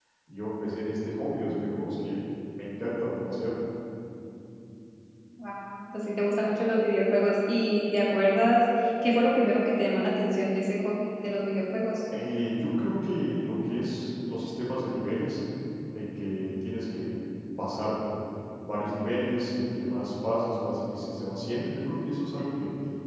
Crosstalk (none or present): none